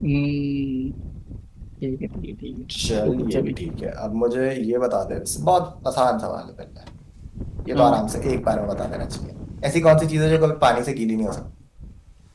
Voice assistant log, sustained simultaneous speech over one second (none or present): none